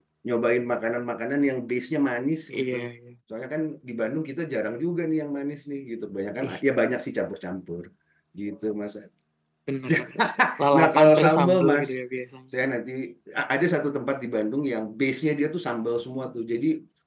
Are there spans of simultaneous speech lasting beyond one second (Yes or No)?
Yes